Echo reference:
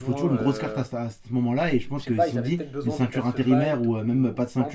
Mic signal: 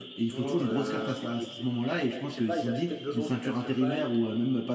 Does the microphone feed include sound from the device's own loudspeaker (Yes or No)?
Yes